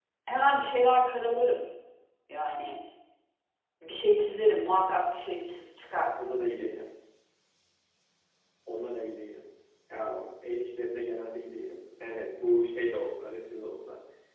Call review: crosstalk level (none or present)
none